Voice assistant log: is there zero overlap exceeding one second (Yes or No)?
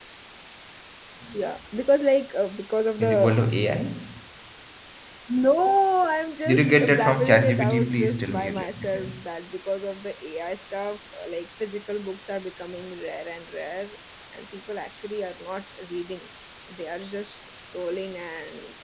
No